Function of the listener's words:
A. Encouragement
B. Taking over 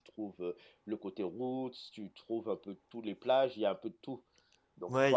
B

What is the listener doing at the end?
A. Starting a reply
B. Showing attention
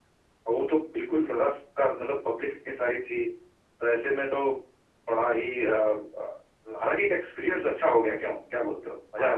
A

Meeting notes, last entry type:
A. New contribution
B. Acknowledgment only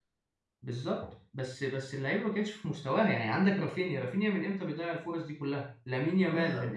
A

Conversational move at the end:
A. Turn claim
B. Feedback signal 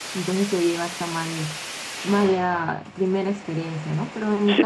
B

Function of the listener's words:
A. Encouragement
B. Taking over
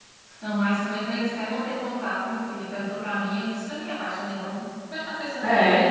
A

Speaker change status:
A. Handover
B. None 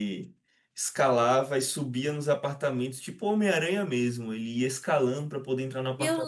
A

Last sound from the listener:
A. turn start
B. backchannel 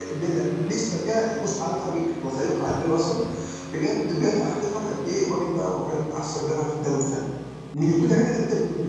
B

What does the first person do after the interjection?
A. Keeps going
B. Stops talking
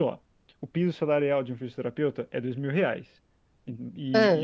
A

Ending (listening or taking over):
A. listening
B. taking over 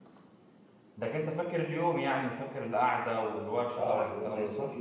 B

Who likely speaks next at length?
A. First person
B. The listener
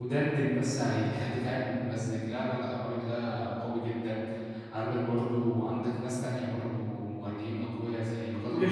B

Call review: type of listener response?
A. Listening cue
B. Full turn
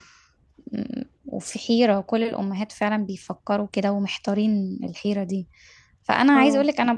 A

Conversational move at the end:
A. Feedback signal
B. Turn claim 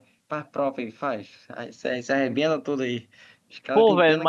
B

